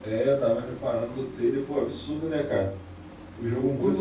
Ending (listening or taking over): taking over